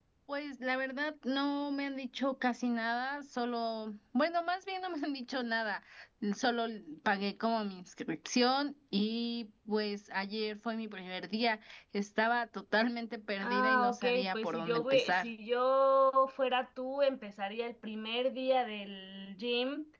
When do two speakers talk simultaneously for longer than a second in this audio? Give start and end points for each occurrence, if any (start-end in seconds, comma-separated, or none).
13.4-15.3